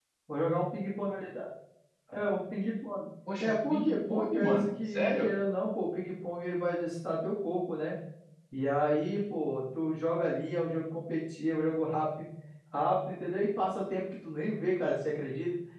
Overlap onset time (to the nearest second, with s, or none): 3 s